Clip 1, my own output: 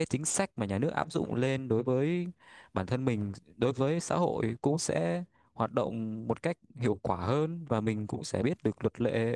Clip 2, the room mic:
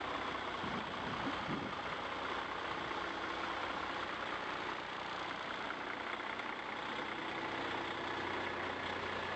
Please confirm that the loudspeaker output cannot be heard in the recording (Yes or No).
Yes